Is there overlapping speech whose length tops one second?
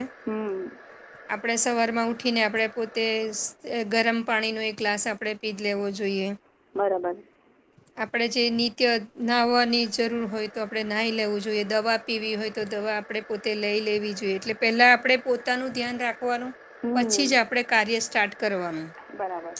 No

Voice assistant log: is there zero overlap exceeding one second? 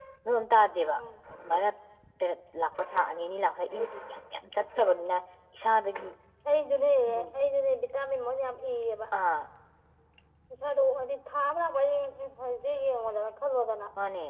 Yes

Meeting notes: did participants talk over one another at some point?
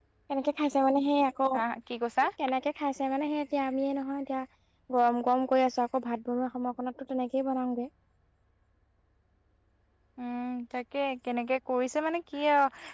No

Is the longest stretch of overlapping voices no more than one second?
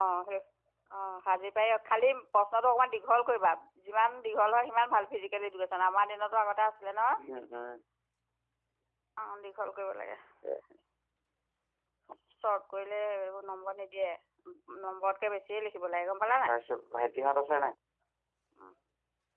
Yes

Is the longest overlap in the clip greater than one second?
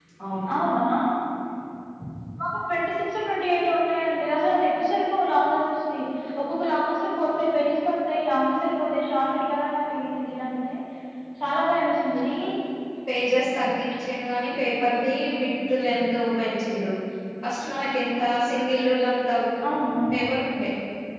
No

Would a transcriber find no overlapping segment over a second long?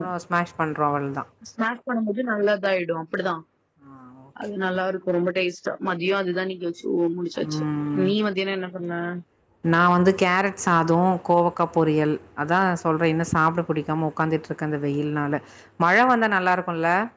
Yes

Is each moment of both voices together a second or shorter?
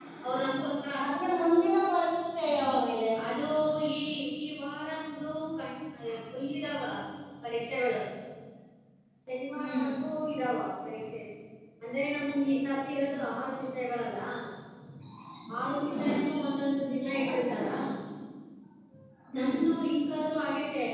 Yes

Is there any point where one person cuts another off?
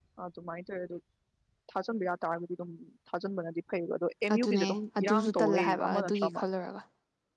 Yes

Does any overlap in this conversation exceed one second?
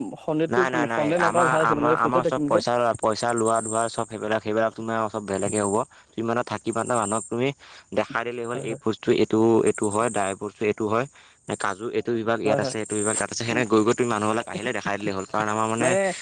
Yes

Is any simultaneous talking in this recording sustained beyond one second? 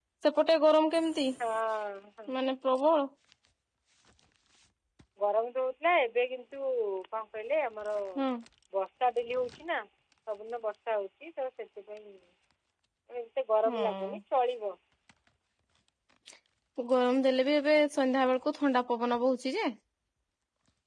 No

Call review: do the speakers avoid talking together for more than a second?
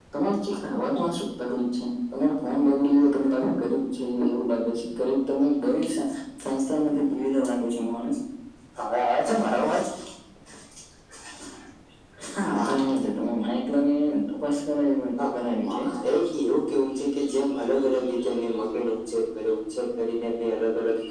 Yes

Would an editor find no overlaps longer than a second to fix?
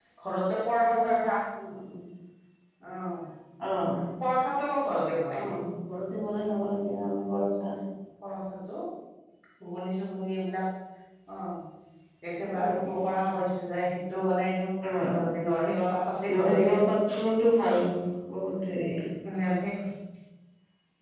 Yes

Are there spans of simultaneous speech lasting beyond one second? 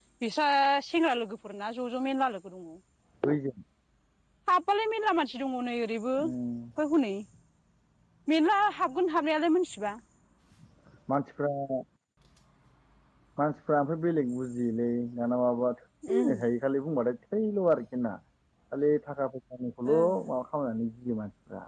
No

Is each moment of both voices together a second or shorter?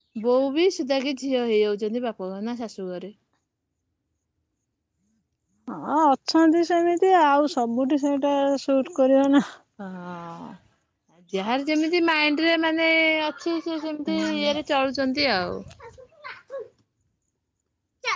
Yes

